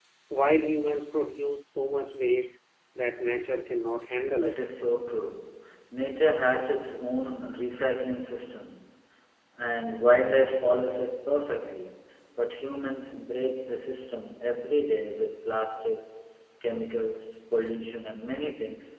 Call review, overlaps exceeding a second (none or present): none